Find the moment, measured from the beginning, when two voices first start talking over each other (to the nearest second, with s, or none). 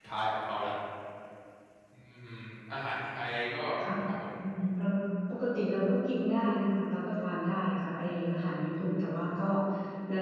none